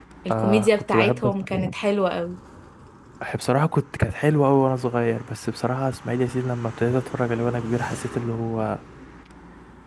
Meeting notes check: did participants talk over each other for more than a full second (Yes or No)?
Yes